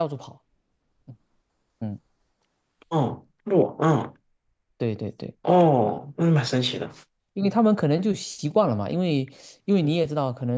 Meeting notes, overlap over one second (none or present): none